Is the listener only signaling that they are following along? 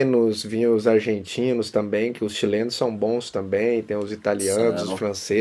Yes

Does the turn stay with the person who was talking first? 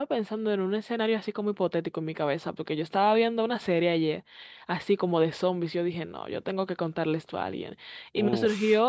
Yes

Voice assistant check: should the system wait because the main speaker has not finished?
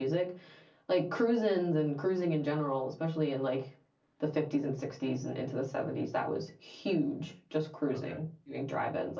Yes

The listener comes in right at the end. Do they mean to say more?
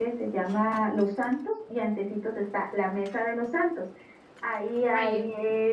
No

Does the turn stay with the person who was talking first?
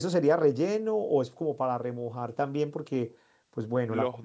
Yes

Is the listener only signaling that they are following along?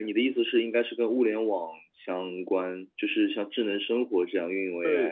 No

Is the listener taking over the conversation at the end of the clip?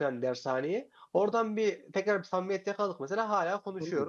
Yes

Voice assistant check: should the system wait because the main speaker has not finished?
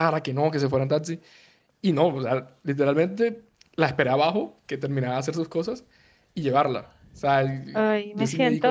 No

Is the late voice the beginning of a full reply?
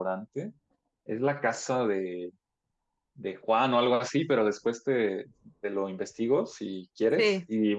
No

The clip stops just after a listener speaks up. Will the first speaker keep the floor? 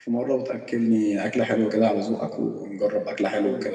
No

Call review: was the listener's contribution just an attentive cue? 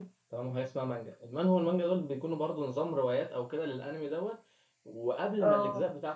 Yes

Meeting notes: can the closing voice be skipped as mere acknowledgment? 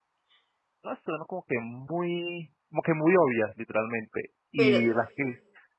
Yes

